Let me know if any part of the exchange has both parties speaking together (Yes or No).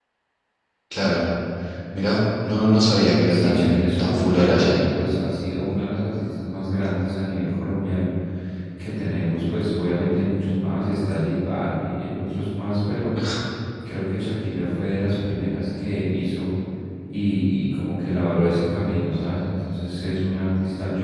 Yes